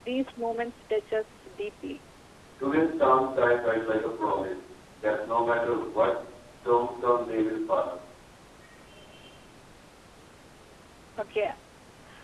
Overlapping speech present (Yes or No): No